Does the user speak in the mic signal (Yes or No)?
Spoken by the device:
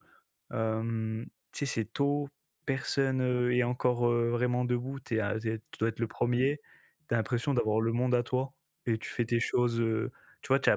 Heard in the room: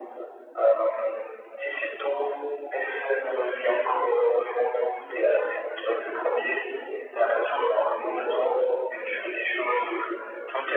No